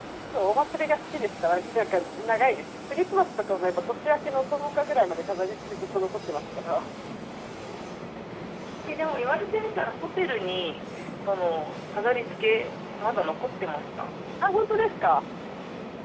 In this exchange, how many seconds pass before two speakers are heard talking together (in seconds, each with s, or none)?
none